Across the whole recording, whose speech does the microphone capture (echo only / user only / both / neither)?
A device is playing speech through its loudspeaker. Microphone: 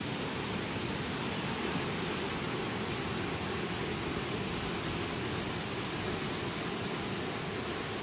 neither